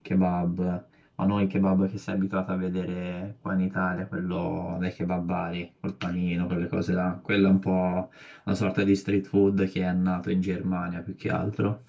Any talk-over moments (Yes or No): No